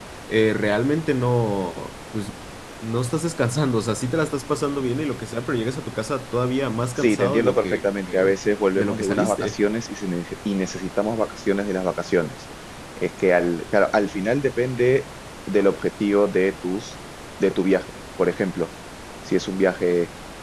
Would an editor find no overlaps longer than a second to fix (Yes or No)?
No